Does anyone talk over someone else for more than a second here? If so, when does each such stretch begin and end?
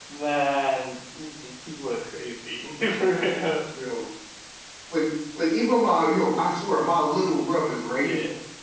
none

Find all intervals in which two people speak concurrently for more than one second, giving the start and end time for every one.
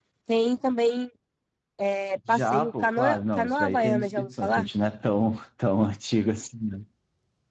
2.3-4.6

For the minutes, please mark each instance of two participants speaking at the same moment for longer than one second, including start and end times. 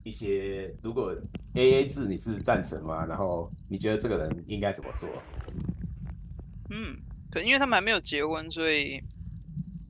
none

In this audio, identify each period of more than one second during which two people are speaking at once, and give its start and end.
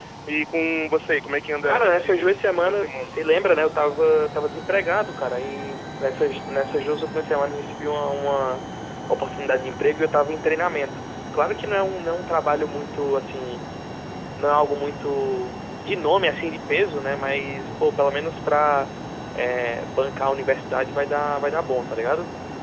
1.6-3.1

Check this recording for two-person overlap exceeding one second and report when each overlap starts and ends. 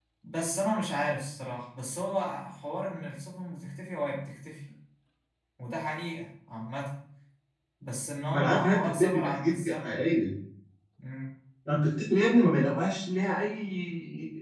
8.3-10.2

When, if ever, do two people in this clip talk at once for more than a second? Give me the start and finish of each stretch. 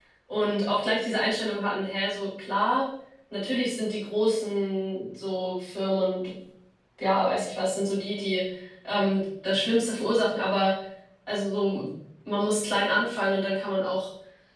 none

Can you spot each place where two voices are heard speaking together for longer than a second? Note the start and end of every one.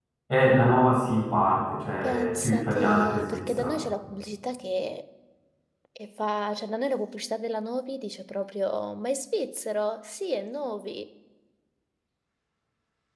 2.0-3.8

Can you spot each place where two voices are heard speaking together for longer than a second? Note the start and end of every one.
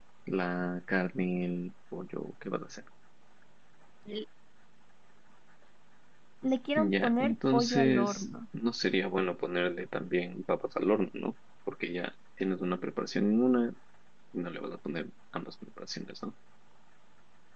6.8-8.2

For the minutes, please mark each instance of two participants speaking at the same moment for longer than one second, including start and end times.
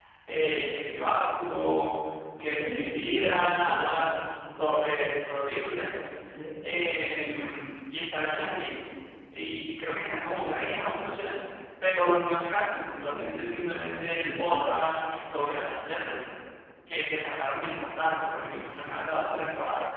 2.4-4.1

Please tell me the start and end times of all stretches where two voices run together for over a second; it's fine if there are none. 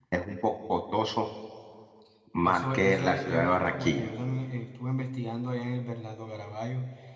2.4-4.0

